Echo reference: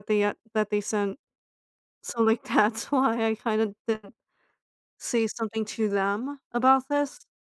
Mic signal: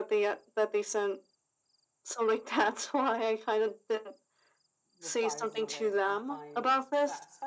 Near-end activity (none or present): present